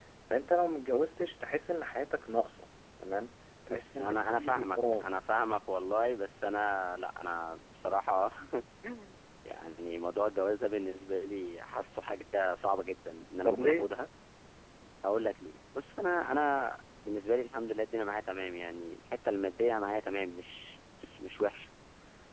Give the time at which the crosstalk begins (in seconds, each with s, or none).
3.7 s